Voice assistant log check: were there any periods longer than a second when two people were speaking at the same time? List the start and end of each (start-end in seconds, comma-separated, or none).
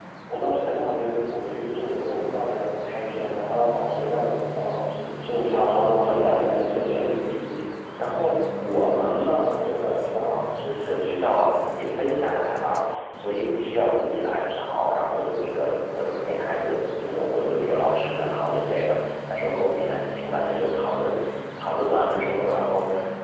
5.5-7.2